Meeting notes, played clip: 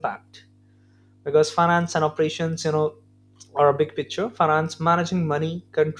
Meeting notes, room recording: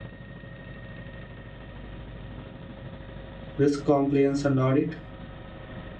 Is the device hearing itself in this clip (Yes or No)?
No